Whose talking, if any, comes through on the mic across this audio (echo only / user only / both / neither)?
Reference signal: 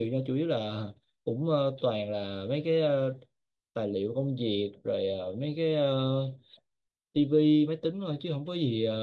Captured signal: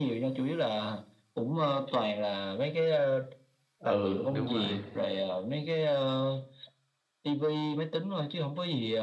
both